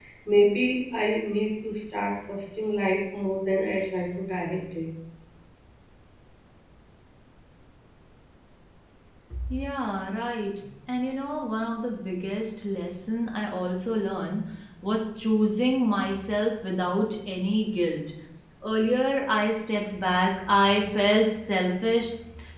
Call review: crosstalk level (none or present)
none